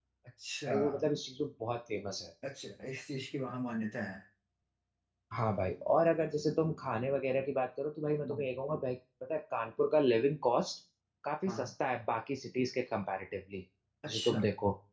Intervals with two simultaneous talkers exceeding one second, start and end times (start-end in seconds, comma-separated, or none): none